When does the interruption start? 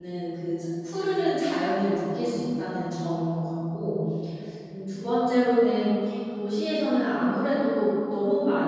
none

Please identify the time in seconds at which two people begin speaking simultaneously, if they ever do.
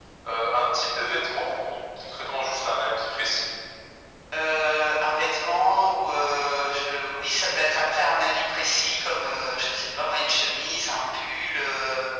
none

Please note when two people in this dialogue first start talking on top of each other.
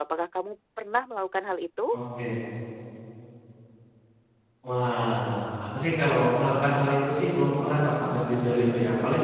none

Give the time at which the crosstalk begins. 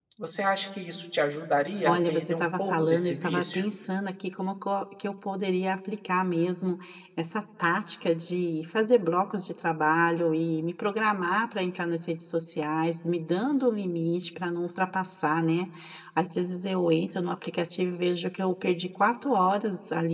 1.9 s

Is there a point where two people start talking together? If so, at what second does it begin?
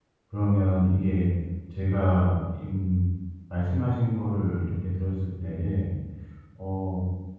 none

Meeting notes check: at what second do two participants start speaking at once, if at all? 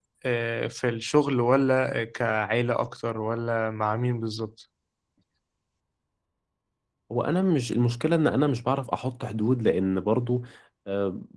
none

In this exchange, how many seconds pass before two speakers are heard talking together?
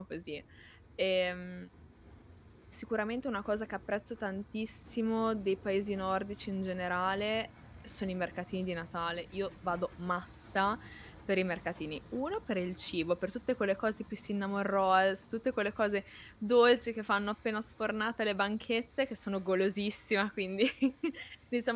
none

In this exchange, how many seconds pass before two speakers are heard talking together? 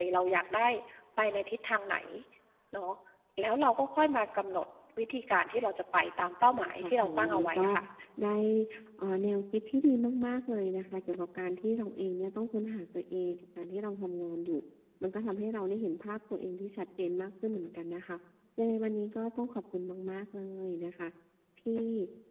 6.4 s

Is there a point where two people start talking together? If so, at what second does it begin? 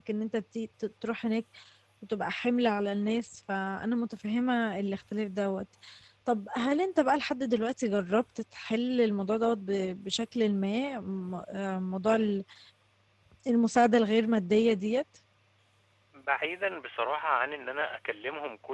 none

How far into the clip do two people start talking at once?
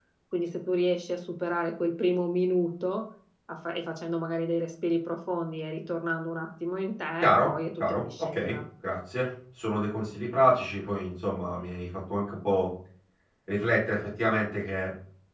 7.2 s

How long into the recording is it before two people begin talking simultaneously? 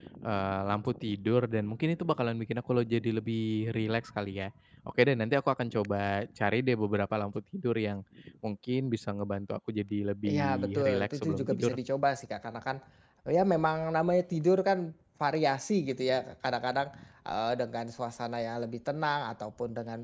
10.2 s

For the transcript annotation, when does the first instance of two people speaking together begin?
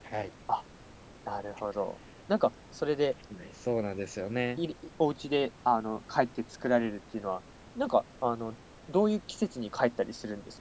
none

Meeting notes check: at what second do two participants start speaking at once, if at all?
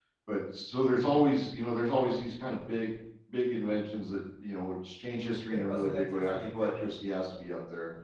5.5 s

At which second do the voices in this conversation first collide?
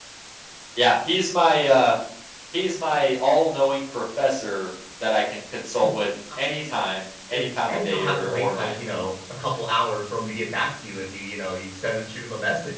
7.3 s

